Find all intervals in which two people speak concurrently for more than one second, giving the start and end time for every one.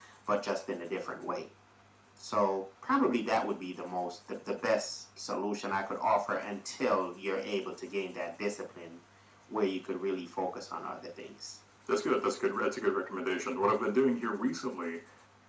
none

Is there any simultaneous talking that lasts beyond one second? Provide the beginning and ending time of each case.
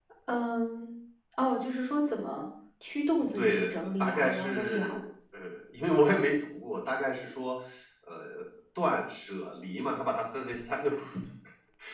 3.4-5.0

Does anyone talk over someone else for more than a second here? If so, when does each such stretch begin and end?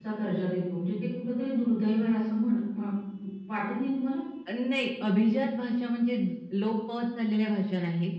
none

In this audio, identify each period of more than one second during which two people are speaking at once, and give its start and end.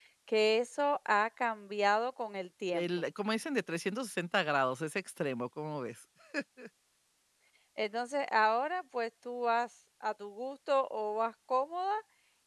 none

